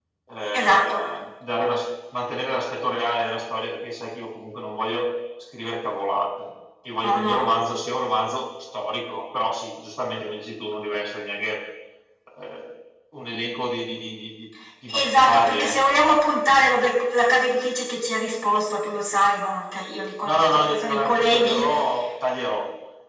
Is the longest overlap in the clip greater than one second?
Yes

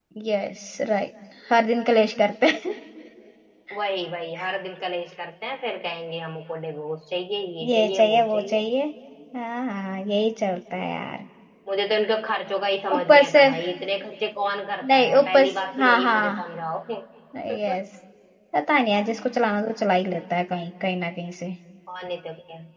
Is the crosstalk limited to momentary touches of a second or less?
No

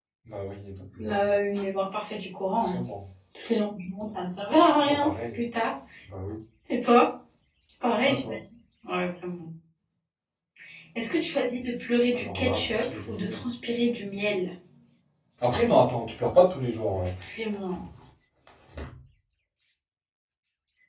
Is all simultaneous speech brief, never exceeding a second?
No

